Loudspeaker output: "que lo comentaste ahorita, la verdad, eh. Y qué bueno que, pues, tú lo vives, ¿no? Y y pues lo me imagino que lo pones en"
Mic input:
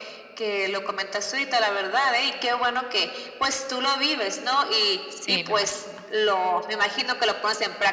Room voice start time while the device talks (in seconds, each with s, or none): 5.1 s